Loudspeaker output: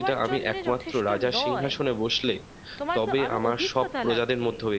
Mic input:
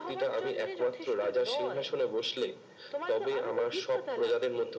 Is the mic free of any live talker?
Yes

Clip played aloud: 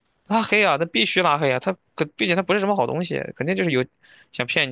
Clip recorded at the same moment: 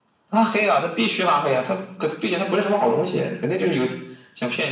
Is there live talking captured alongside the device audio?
No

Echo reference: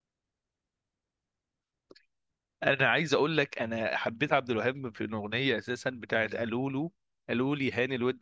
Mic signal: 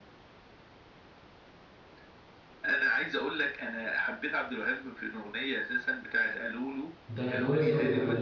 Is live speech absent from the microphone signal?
No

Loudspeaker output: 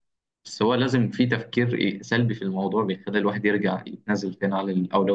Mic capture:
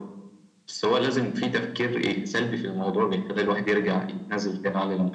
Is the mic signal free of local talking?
Yes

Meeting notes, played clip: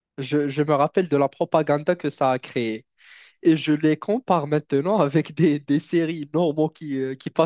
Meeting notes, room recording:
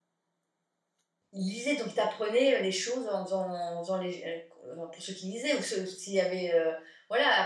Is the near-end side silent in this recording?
No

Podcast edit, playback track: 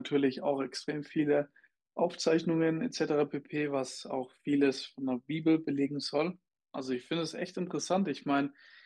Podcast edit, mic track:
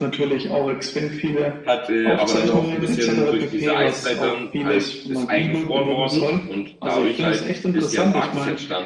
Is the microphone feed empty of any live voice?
No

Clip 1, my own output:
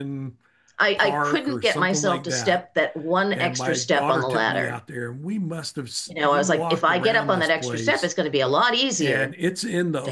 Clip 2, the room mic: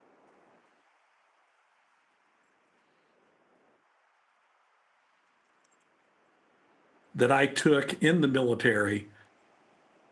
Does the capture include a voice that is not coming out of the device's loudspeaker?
Yes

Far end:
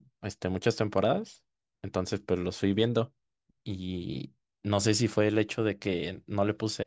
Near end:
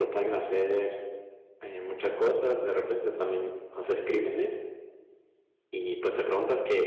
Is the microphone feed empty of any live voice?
No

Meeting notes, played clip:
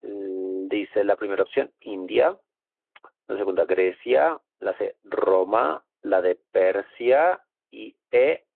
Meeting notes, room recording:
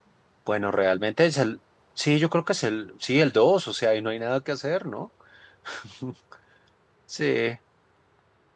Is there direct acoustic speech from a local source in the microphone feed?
Yes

